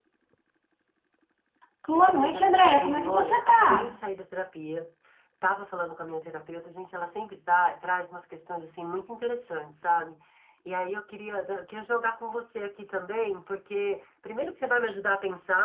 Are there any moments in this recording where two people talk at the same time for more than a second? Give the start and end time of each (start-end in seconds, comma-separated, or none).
1.9-4.0